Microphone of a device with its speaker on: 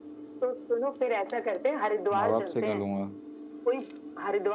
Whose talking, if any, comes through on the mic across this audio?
both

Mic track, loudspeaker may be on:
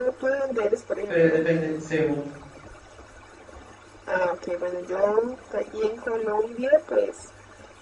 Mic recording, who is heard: both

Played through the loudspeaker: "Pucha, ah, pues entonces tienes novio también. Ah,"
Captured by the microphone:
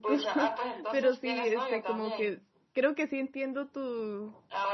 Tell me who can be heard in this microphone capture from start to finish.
both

